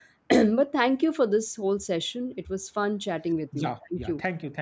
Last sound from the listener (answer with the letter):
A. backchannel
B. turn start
B